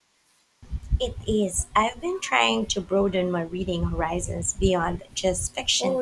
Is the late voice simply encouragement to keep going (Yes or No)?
No